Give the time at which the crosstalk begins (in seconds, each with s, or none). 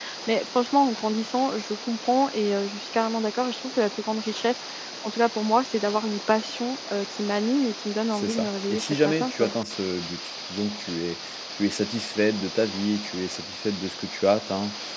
8.2 s